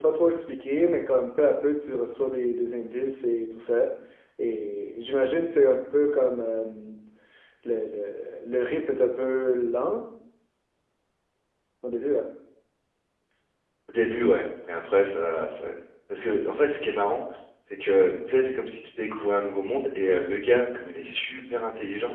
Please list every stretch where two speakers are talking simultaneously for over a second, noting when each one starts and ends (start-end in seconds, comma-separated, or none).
none